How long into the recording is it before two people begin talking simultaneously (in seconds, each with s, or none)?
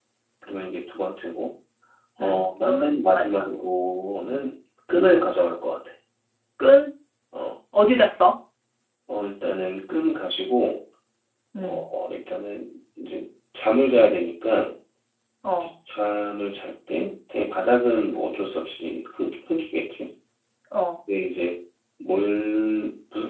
2.2 s